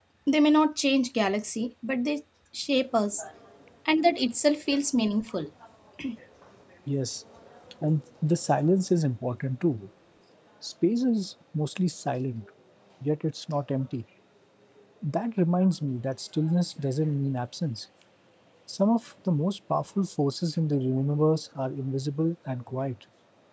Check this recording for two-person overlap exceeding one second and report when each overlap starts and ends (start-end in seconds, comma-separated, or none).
none